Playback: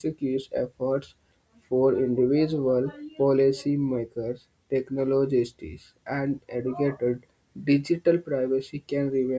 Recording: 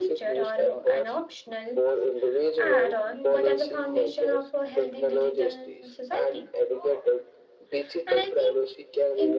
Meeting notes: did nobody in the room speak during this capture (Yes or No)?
No